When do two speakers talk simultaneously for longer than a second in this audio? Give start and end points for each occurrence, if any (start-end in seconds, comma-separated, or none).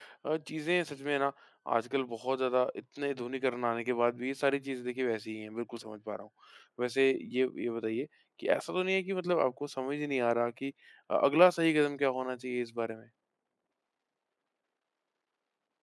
none